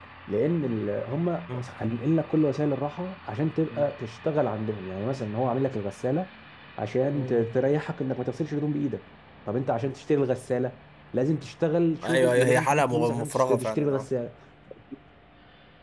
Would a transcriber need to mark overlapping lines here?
Yes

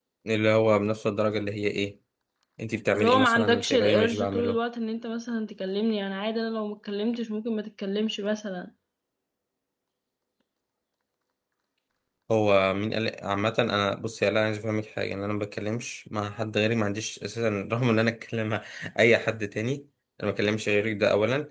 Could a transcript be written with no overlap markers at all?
No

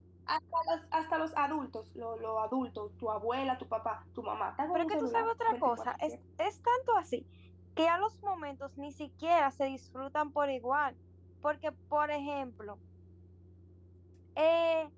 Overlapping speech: Yes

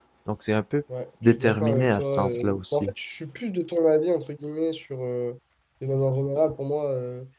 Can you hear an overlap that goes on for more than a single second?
Yes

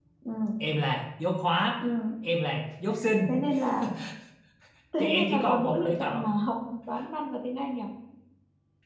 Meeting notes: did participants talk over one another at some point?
Yes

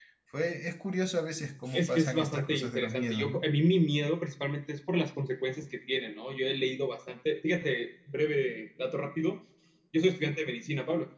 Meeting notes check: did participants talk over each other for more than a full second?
Yes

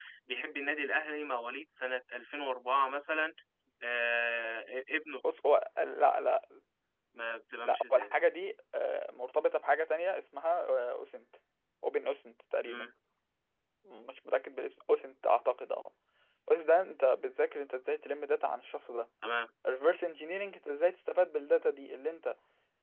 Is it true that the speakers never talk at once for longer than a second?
Yes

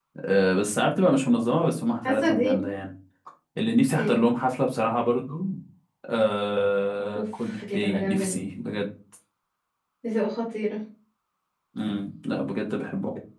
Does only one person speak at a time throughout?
No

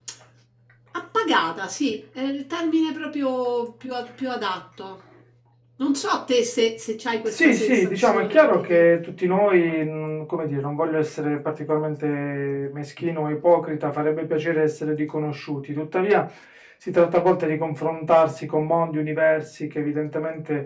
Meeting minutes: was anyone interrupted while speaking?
Yes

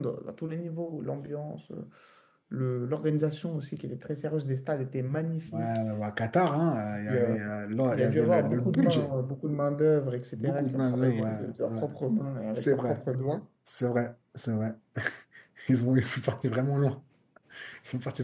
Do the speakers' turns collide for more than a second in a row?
Yes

